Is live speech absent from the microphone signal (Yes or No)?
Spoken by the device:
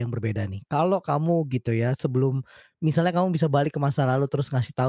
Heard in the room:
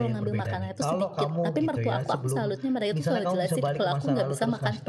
No